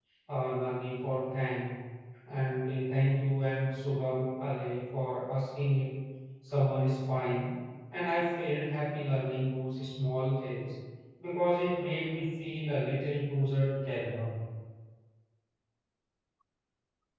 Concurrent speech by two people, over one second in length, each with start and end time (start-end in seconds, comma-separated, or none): none